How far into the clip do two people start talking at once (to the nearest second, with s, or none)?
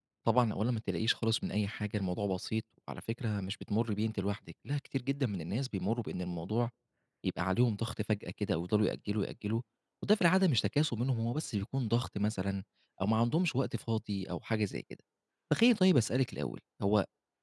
none